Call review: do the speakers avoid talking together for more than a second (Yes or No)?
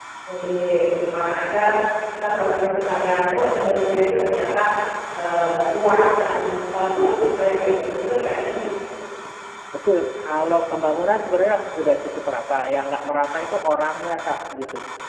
Yes